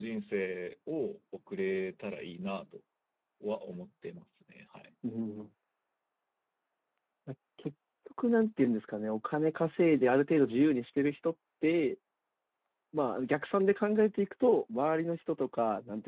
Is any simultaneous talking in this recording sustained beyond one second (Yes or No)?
No